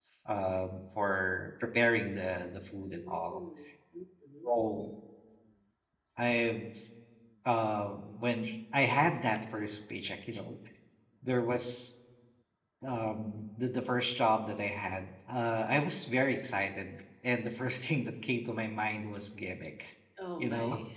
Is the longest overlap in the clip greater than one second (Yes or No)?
No